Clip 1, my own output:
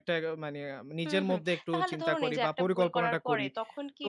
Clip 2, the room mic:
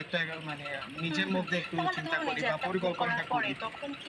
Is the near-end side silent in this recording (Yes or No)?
Yes